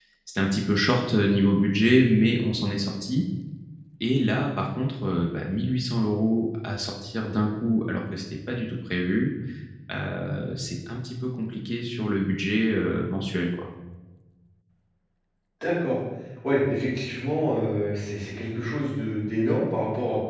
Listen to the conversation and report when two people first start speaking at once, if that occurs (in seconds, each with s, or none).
none